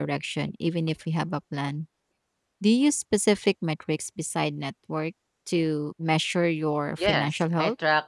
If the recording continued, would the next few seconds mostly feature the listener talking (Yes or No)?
Yes